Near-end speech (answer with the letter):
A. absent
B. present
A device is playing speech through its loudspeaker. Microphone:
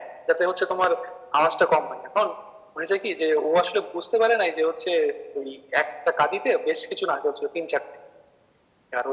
A